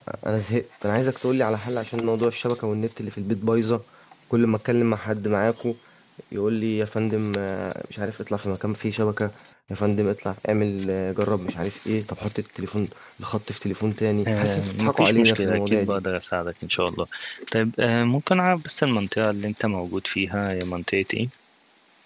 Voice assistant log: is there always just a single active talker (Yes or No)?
No